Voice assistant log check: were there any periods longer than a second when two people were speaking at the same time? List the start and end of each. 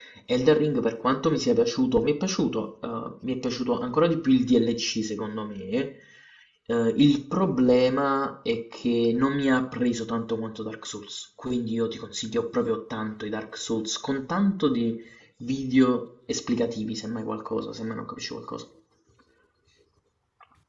none

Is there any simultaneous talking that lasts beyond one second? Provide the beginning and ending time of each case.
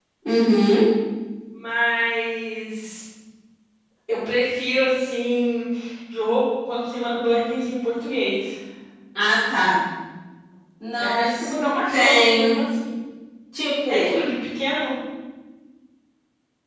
10.9-12.6

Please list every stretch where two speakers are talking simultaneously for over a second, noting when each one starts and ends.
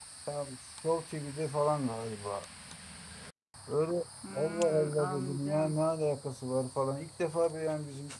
4.3-5.8

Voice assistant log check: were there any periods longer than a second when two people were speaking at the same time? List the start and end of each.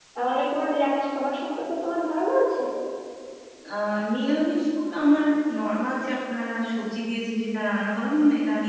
none

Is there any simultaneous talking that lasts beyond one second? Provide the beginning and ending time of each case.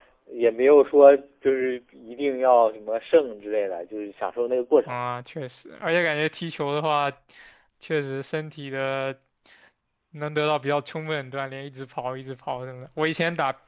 none

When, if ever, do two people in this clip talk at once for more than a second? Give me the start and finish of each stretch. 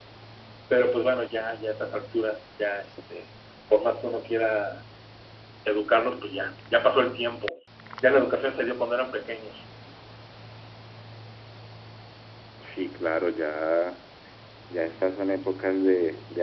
none

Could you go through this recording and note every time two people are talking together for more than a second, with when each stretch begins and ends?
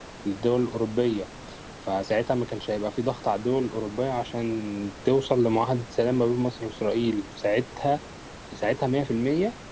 none

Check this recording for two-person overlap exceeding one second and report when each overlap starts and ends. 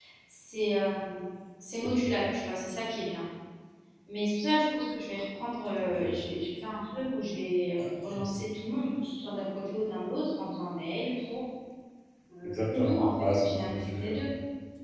12.4-14.2

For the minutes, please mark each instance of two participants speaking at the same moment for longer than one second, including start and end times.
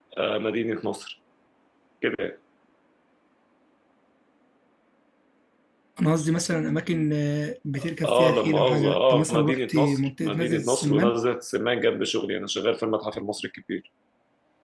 8.0-11.2

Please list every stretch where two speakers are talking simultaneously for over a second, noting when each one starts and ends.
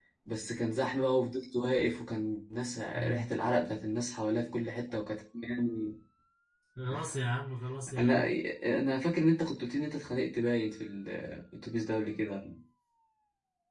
none

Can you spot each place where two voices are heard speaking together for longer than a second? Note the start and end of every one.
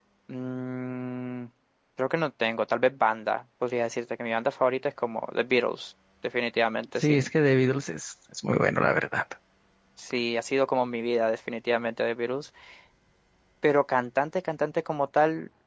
none

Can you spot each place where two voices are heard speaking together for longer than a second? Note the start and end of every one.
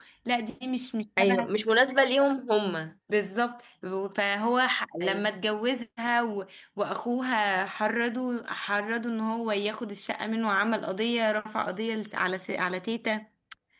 none

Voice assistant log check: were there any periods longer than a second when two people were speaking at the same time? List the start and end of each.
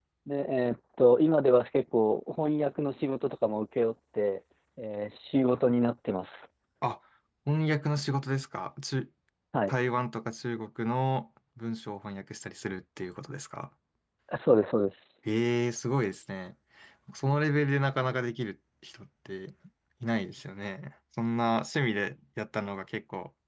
none

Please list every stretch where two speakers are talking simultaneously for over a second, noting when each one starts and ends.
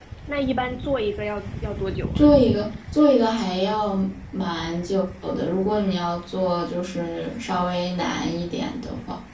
none

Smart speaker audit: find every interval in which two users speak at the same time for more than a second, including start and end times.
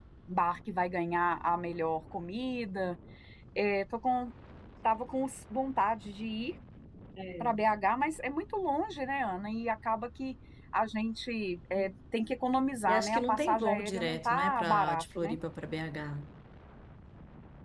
12.9-15.4

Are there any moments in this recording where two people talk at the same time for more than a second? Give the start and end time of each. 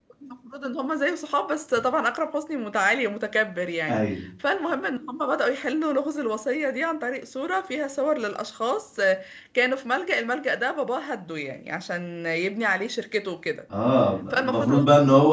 none

